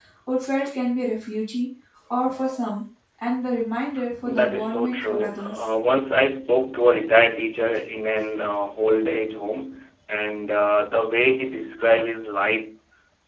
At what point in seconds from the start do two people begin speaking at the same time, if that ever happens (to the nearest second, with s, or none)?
4 s